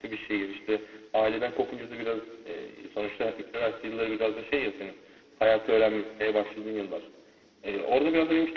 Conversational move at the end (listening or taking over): listening